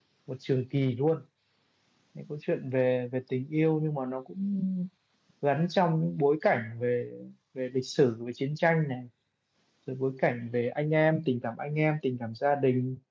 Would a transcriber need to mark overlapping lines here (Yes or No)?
No